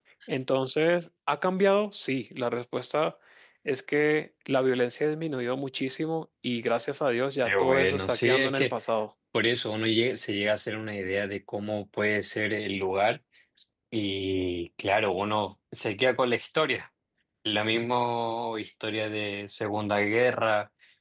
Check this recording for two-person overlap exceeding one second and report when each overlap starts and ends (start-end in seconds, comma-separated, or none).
7.4-8.7